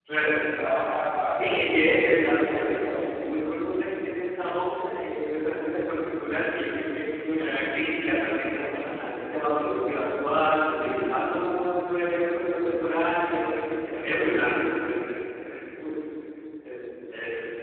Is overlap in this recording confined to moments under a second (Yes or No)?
No